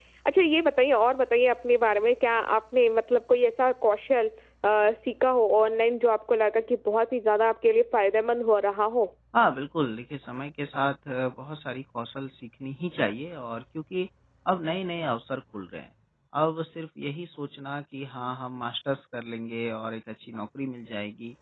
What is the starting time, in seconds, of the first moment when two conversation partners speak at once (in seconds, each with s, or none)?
none